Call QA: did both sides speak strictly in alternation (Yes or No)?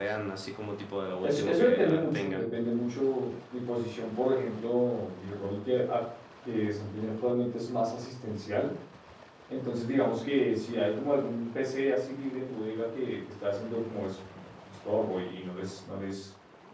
No